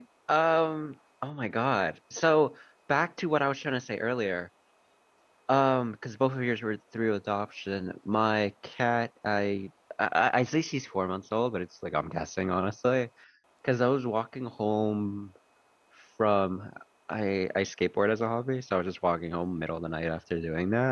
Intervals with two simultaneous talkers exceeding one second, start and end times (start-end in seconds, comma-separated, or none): none